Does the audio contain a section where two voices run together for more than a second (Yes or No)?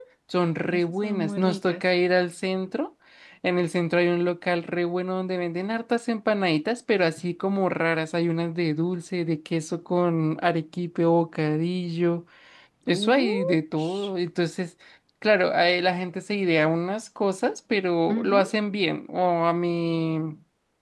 Yes